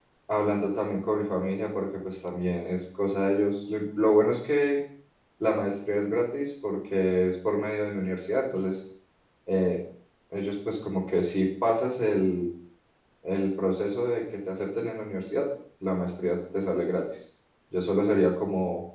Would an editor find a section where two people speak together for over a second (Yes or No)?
No